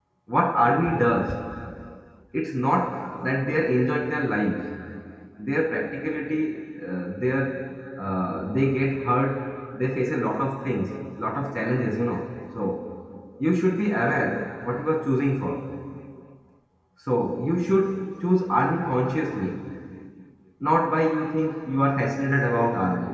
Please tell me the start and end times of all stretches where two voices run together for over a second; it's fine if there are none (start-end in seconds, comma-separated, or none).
none